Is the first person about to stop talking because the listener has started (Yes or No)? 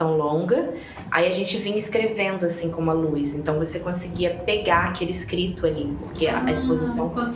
Yes